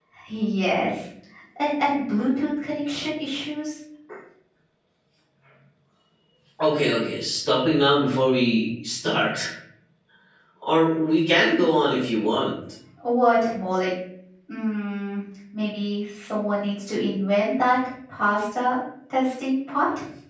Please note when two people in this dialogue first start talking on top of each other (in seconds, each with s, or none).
none